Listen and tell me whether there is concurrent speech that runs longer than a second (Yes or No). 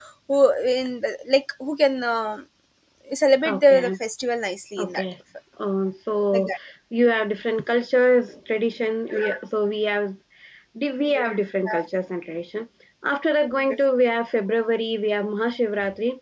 No